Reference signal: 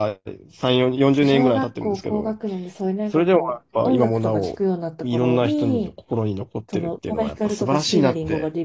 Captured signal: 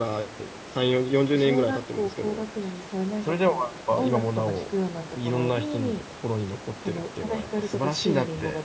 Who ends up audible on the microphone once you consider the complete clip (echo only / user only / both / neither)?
echo only